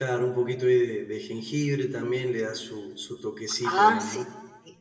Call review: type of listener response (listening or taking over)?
taking over